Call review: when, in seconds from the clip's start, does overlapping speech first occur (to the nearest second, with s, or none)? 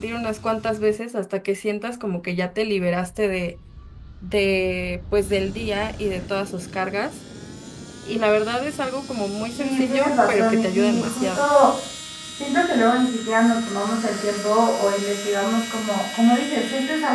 10 s